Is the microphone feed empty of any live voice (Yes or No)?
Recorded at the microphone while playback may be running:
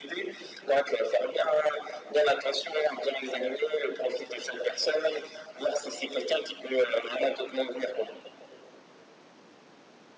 Yes